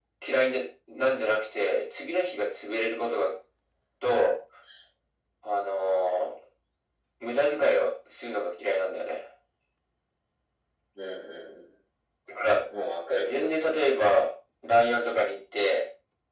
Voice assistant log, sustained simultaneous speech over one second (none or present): none